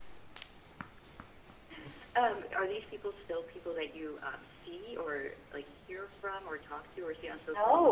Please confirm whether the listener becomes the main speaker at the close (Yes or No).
Yes